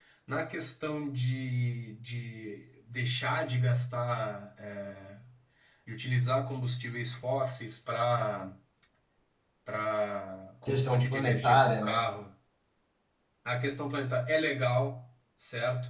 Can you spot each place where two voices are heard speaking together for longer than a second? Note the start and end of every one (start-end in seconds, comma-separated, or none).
10.6-12.1